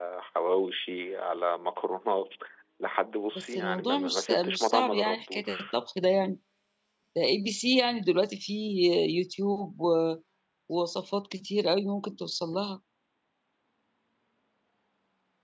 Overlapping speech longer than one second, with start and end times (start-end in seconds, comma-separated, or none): 3.4-5.7